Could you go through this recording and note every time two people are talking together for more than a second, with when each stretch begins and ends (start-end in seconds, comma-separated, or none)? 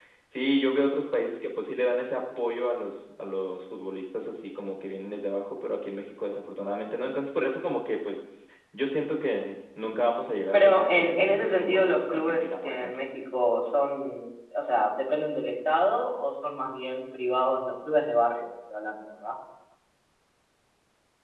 10.5-13.0